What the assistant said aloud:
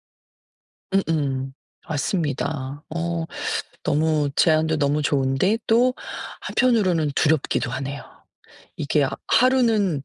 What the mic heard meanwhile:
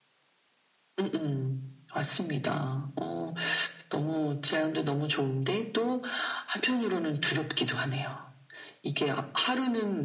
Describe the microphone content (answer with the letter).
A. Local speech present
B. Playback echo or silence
B